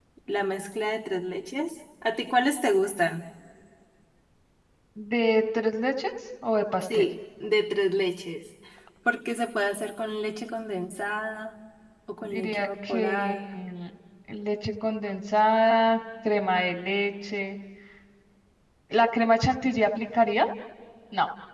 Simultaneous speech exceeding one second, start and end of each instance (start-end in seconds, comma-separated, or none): 12.2-13.5